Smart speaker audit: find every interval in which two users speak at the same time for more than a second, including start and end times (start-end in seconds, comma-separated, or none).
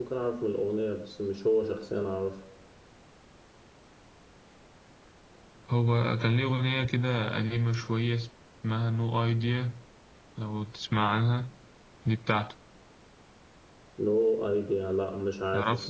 none